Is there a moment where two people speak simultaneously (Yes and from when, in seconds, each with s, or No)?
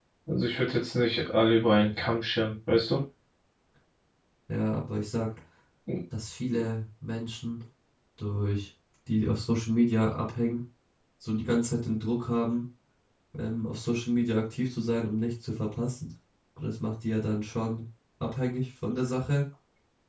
No